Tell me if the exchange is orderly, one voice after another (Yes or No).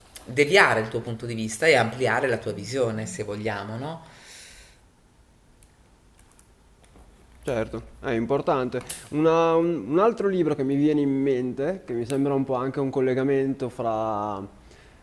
Yes